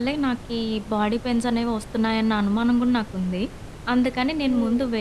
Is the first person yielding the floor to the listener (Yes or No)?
No